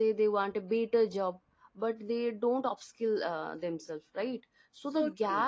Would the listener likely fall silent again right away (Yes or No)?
Yes